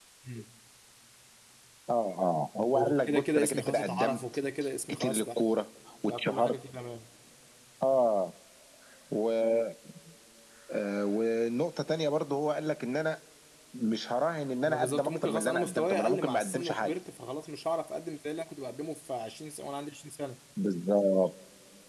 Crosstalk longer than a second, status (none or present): present